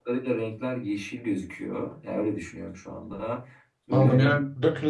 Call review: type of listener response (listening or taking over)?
taking over